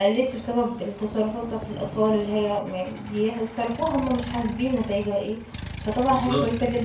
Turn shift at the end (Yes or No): No